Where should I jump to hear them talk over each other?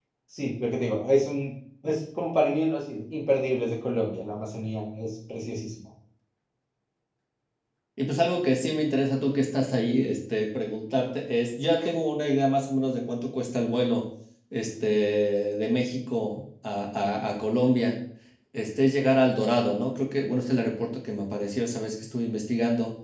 none

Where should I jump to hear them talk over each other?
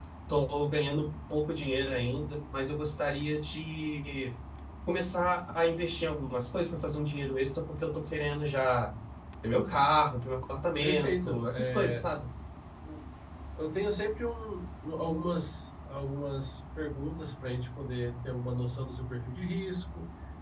11 s

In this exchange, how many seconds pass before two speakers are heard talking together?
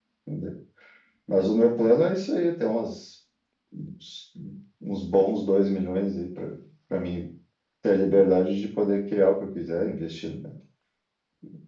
none

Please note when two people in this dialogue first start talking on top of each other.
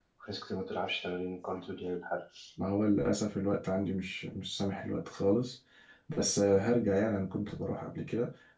none

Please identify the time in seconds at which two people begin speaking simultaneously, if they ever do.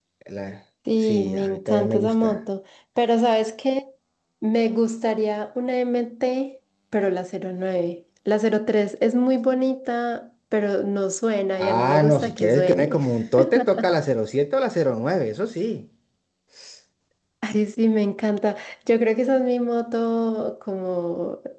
1 s

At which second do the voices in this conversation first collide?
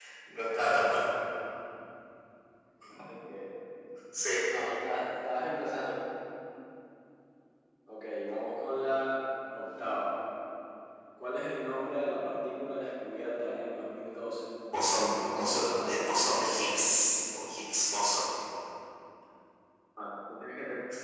15 s

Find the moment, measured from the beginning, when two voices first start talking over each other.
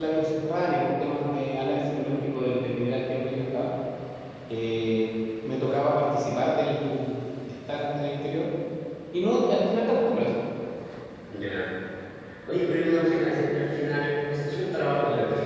none

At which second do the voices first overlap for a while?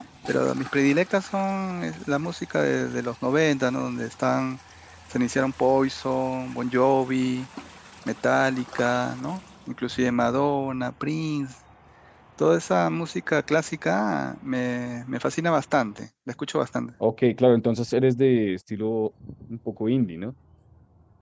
none

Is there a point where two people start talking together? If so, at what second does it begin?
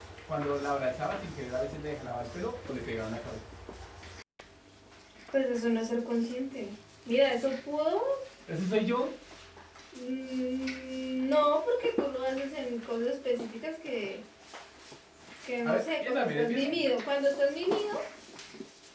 16 s

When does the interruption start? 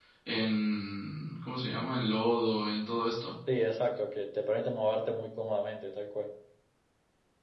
none

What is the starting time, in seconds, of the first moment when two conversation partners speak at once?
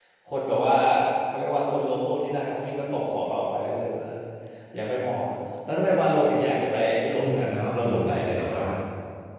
7 s

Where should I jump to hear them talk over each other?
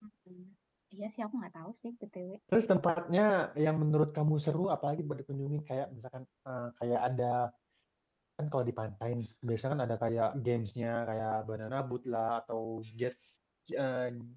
none

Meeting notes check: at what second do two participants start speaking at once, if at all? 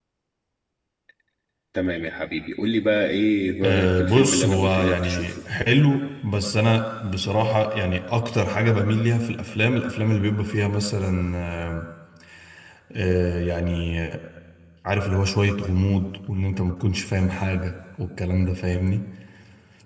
4 s

